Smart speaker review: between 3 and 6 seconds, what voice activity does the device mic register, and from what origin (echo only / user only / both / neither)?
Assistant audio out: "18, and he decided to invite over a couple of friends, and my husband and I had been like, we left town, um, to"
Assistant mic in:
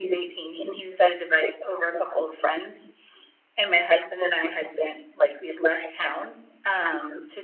echo only